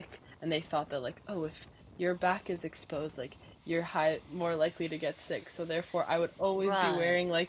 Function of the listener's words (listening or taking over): listening